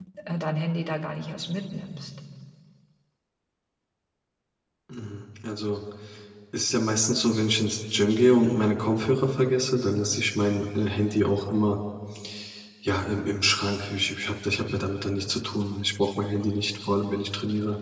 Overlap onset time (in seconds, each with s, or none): none